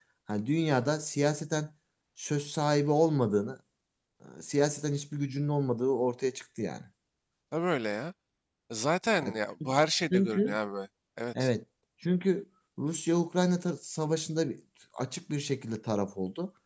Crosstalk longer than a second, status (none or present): none